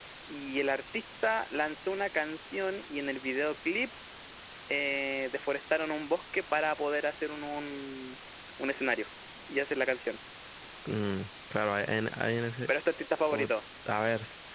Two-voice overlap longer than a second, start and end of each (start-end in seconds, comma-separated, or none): none